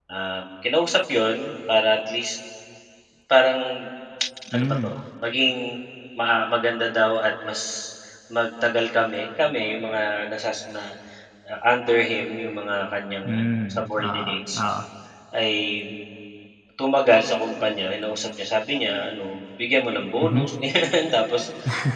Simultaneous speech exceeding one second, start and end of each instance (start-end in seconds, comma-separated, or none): 13.2-14.8